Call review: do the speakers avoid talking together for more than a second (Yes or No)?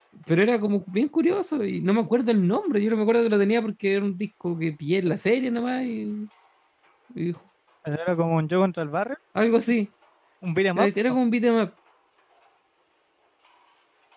Yes